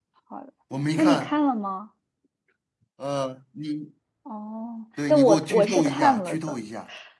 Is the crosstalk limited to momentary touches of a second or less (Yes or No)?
No